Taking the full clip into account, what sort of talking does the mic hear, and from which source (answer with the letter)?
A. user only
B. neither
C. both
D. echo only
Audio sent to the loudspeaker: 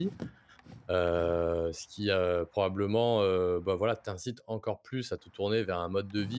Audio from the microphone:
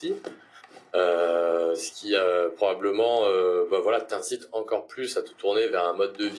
D